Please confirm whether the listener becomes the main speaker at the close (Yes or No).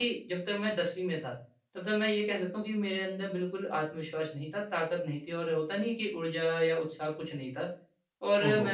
No